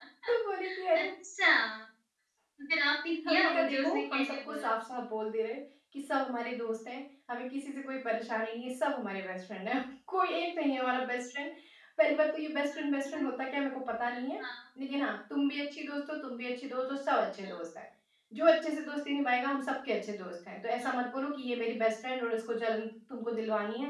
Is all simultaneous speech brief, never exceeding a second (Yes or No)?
No